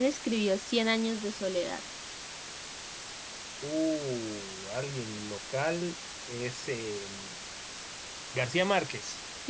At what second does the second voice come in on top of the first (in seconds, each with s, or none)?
none